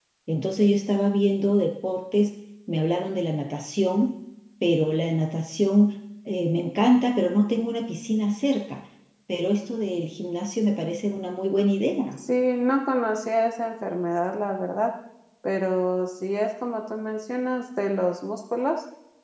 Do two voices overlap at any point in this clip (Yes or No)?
No